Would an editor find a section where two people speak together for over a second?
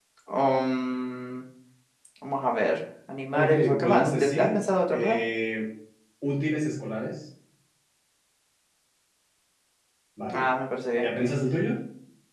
Yes, from 3.3 s

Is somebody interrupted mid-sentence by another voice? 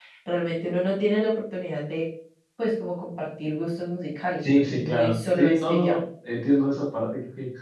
Yes, from 4.4 s

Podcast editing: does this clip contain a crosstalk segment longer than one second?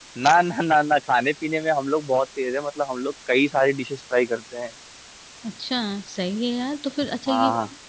No

